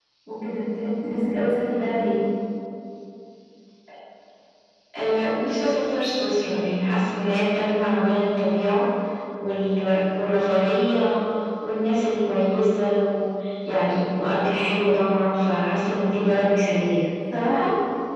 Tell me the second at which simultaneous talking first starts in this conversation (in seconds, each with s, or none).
none